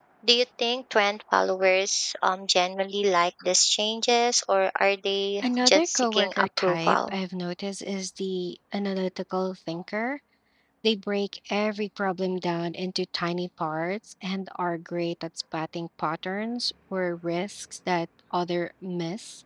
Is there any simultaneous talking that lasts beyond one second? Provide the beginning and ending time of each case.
5.4-7.2

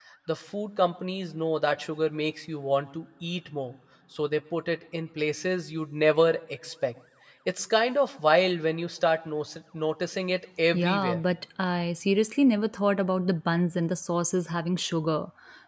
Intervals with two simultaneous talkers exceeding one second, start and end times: none

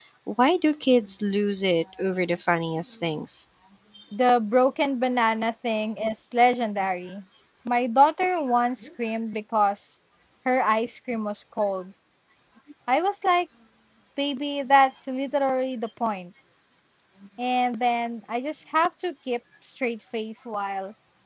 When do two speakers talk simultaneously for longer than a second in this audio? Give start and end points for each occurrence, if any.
none

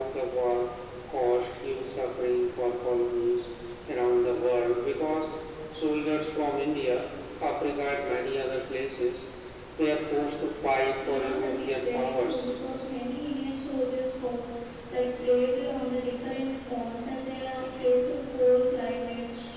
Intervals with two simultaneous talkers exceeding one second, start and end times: 11.1-12.5

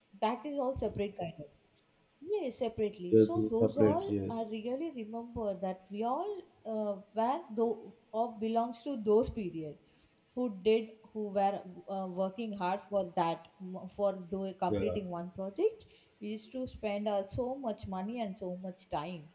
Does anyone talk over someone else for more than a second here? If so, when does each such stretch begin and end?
3.1-4.3

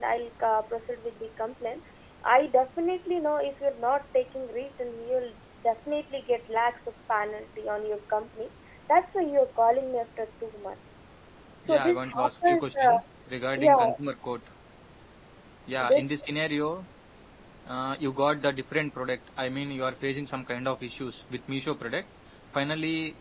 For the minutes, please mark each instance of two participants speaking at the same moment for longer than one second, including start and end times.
11.7-13.0

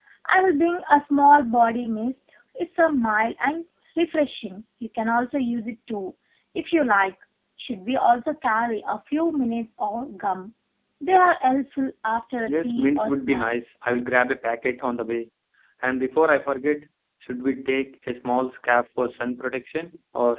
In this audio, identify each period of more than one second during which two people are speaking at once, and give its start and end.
12.5-13.7

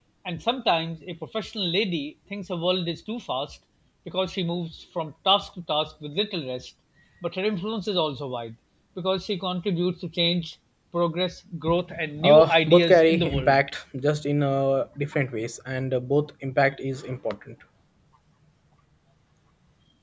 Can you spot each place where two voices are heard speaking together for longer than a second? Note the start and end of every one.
12.2-13.6

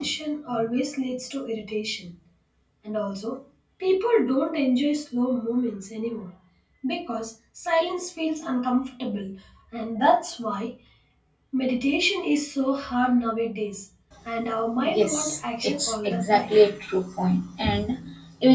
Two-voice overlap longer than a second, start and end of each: 15.0-16.5

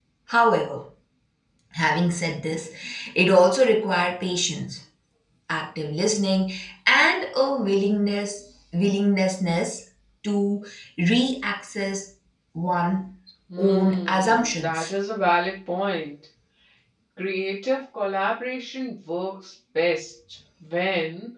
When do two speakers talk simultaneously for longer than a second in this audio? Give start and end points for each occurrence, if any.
13.6-14.9

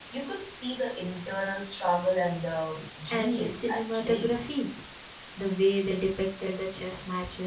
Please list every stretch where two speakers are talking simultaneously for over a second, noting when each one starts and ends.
3.1-4.3

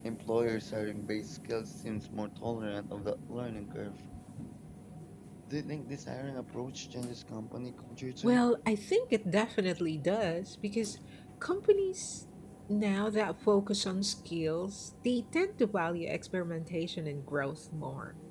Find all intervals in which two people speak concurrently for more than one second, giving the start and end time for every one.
none

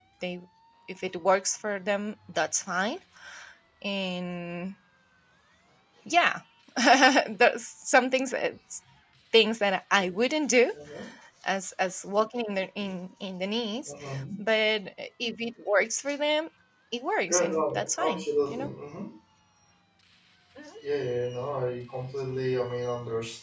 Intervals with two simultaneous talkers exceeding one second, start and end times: 17.3-18.7

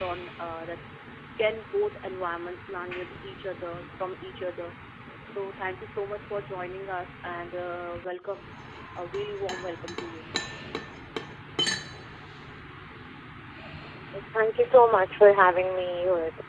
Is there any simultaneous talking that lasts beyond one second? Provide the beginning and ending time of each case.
none

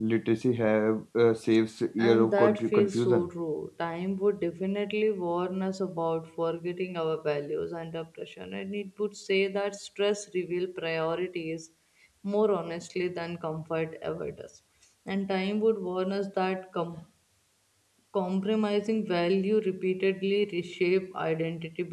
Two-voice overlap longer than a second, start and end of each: 2.0-3.3

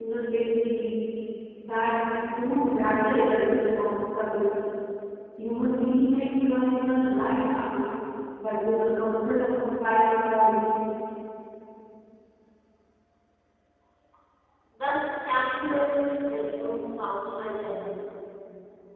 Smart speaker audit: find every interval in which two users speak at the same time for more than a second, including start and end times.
none

